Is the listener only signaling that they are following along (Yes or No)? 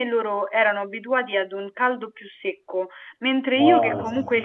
Yes